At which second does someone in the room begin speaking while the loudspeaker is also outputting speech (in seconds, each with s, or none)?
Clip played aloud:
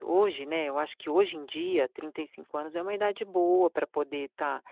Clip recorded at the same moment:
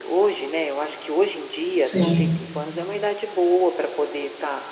1.8 s